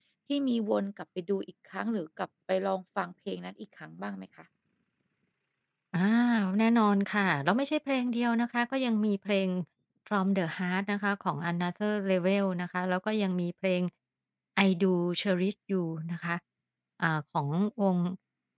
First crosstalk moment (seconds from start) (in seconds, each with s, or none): none